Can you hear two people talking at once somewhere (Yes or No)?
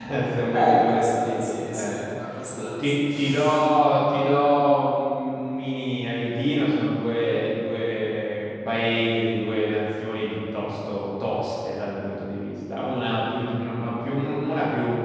Yes